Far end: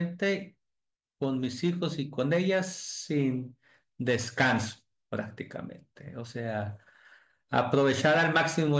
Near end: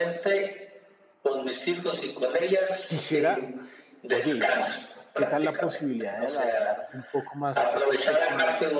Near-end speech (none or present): present